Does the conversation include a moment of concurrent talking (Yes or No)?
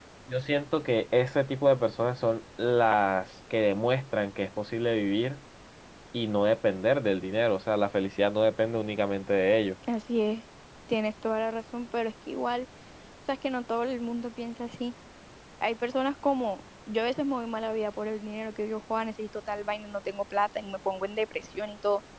No